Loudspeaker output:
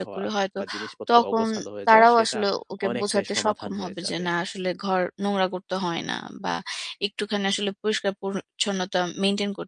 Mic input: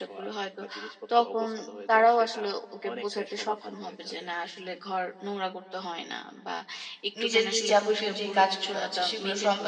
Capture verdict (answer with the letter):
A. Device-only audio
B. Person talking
B